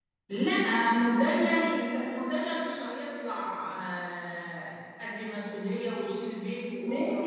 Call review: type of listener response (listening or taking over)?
taking over